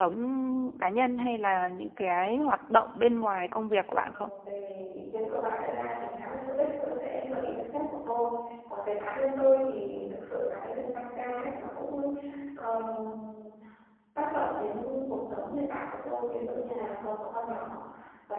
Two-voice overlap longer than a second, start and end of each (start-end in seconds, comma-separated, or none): none